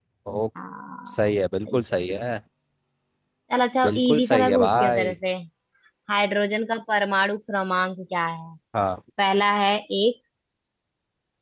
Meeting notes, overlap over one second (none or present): present